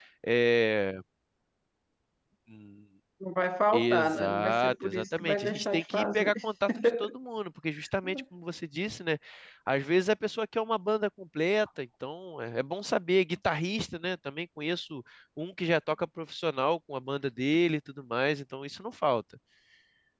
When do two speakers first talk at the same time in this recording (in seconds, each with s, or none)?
3.7 s